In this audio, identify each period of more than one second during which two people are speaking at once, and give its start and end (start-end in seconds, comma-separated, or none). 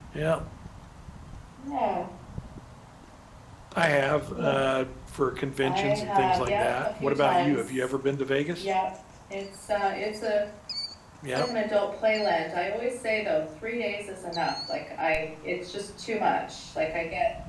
5.6-7.9